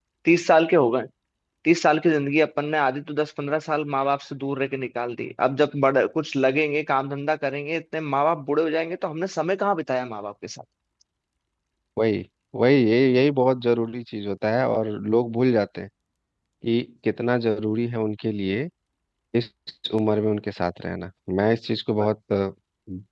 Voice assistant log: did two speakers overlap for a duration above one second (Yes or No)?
No